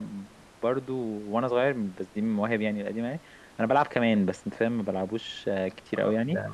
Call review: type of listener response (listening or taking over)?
taking over